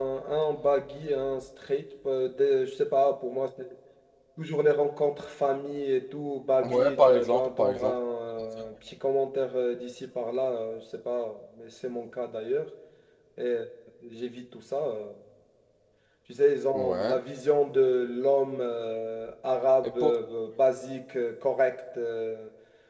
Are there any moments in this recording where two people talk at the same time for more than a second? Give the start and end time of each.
6.6-7.9

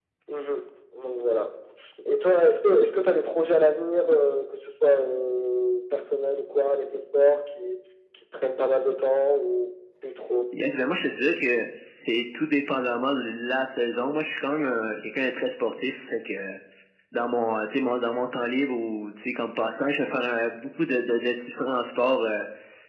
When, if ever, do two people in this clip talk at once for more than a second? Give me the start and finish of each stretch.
none

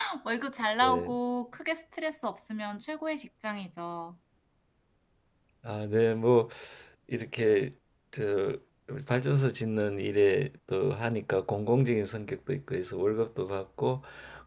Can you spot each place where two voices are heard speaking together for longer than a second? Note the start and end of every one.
none

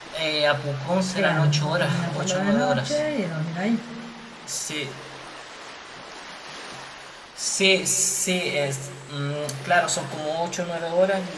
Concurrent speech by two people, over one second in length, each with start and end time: 1.1-3.0

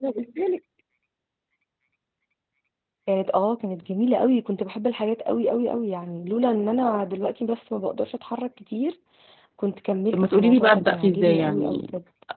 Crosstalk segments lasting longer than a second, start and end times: 10.1-11.8

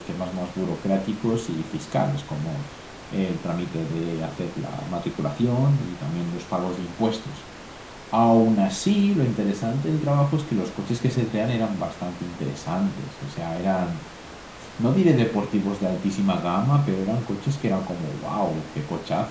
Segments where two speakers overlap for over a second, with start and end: none

